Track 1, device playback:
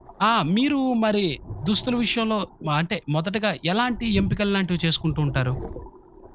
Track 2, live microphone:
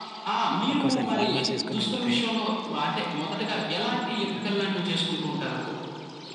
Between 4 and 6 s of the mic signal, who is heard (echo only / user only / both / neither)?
echo only